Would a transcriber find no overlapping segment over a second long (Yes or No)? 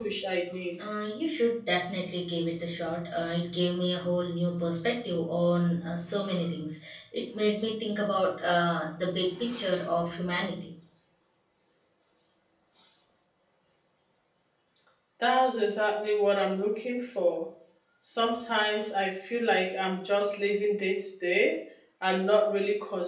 Yes